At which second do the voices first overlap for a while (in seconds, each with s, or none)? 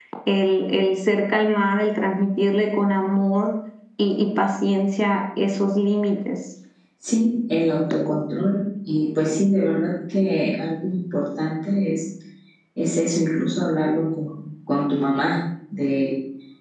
none